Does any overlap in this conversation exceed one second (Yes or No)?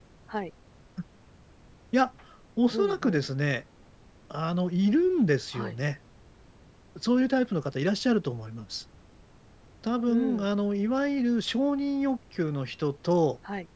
No